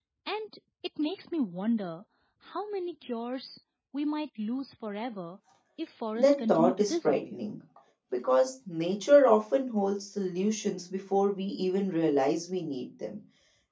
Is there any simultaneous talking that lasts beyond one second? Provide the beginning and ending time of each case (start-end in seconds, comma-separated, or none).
6.2-7.4